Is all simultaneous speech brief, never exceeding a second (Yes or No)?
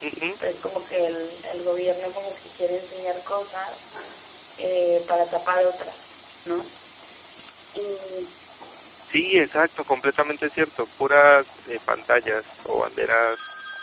Yes